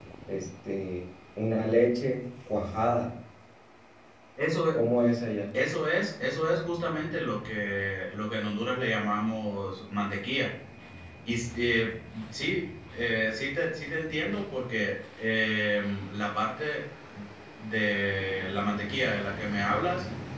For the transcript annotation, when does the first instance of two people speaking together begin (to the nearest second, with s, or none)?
none